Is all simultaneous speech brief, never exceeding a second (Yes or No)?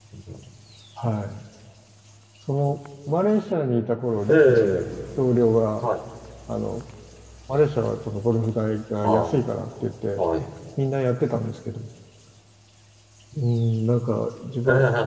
Yes